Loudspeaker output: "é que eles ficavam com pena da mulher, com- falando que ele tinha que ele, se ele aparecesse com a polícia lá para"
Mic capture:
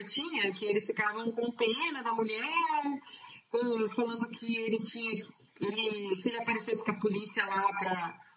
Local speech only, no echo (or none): none